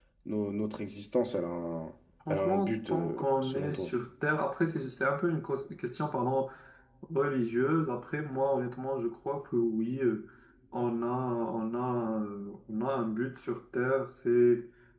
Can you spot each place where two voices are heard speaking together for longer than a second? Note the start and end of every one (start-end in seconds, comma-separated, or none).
2.3-3.9